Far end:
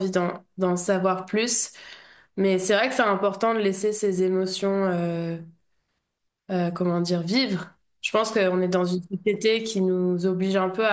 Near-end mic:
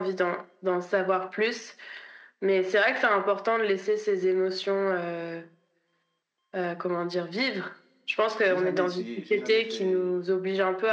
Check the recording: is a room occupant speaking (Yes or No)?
Yes